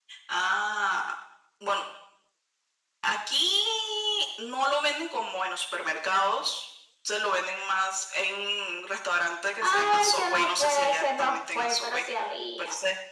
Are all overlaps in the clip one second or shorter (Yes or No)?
No